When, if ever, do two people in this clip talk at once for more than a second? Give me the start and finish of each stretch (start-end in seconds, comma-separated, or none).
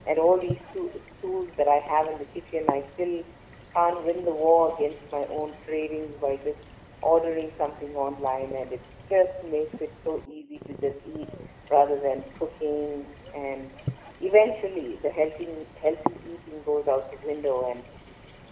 none